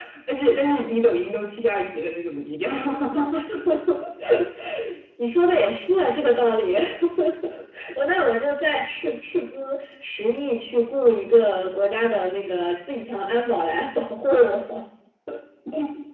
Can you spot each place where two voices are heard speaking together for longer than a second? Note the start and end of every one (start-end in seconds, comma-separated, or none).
none